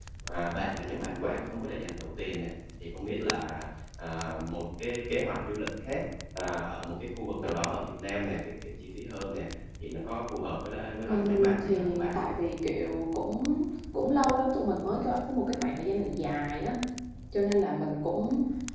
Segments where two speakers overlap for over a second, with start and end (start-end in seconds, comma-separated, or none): 11.1-12.3